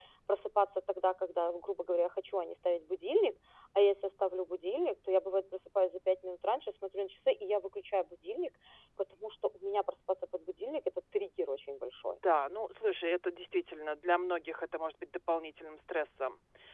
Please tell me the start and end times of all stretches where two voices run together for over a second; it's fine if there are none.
none

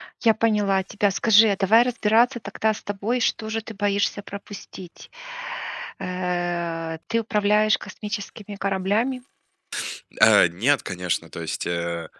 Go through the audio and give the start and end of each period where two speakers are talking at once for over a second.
none

